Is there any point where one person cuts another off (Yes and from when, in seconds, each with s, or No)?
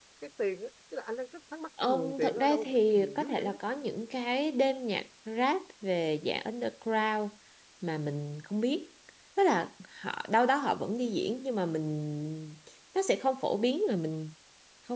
Yes, from 1.8 s